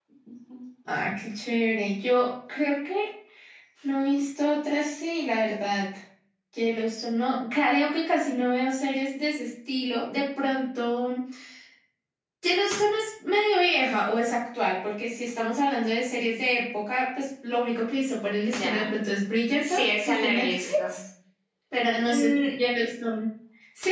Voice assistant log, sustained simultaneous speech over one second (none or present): present